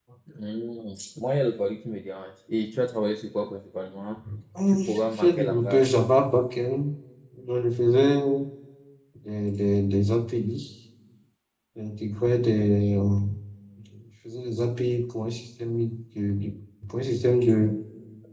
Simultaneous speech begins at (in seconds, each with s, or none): 4.7 s